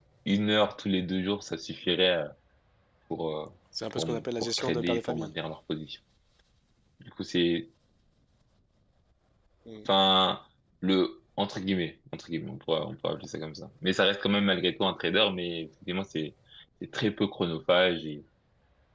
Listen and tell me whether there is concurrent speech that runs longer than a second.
Yes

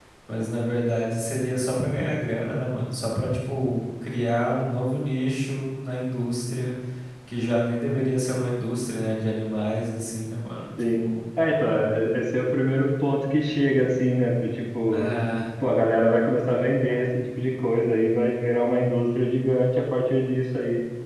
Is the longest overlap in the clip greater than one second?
No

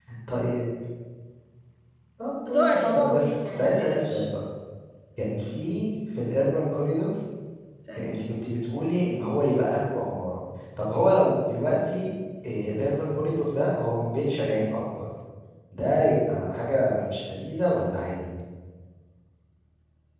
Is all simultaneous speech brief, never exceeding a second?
No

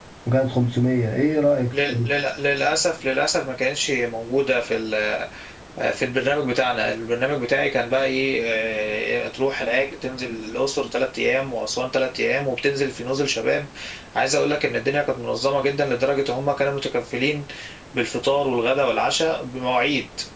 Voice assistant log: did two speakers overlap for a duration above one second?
No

